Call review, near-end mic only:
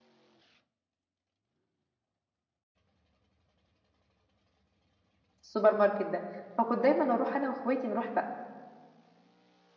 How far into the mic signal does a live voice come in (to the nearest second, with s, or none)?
5 s